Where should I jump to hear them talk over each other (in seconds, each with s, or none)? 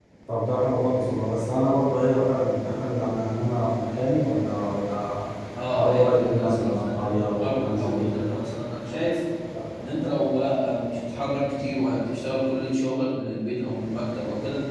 5.7 s